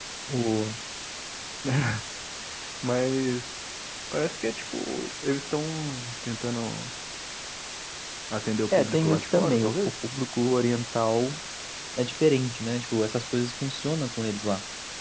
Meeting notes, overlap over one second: present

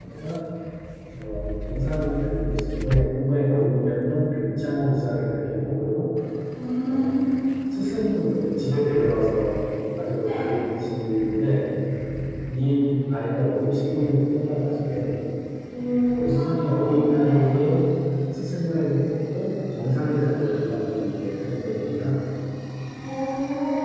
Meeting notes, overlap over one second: present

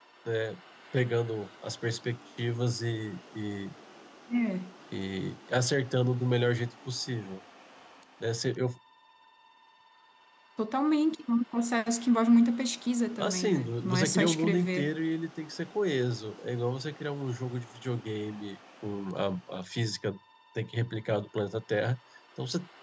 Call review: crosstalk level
present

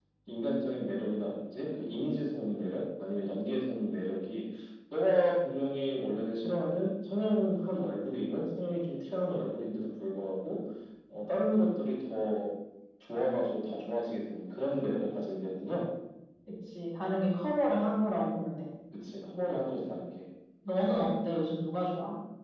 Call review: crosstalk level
none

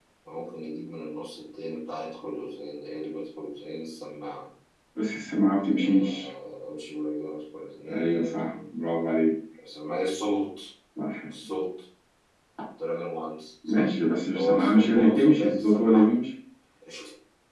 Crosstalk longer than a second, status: present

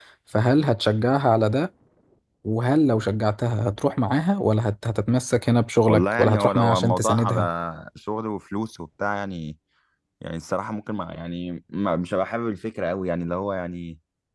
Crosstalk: present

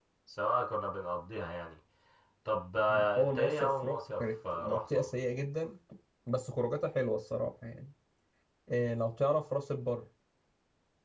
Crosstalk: present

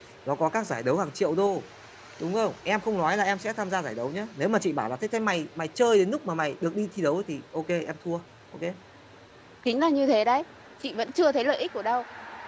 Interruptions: none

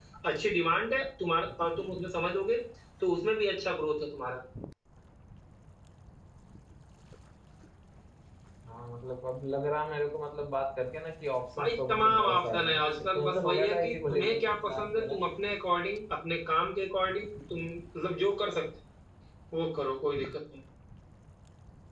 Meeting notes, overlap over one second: present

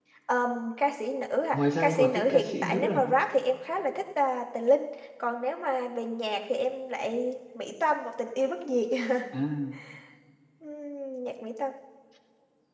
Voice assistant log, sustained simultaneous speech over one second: present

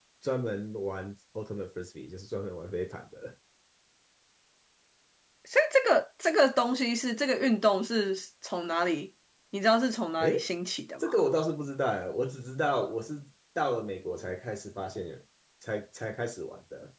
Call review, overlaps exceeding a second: none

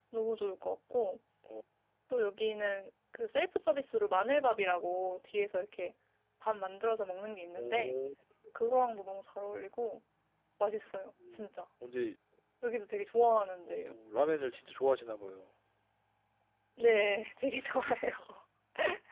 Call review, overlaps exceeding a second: none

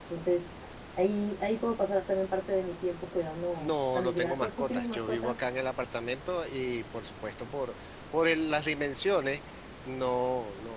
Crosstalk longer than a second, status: present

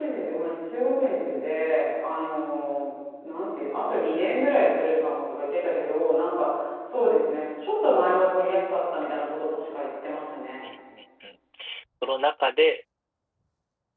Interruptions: none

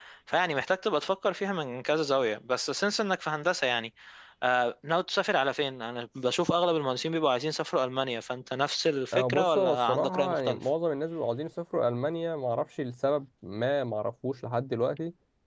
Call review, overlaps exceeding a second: present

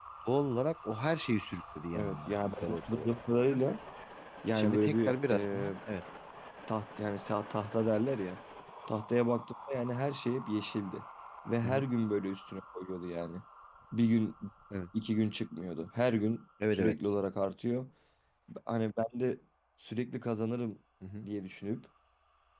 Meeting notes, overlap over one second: present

